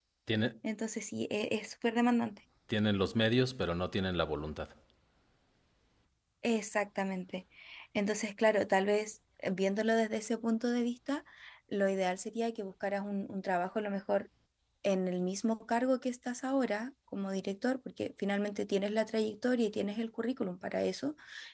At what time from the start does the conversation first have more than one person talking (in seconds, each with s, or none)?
none